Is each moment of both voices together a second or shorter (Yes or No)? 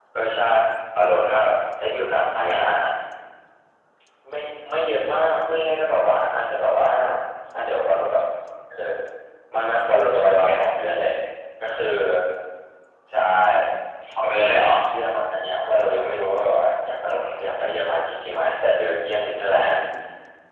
Yes